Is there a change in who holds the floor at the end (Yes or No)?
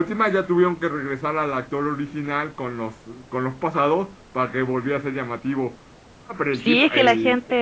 Yes